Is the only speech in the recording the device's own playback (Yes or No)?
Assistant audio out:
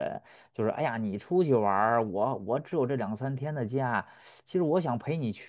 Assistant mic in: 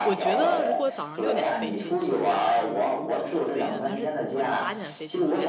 No